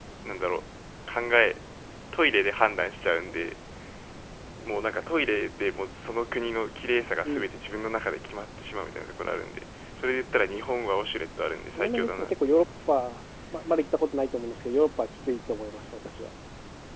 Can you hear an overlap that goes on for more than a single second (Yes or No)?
Yes